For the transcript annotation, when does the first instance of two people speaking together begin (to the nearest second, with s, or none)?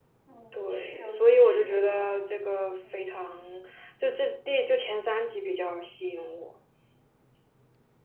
1 s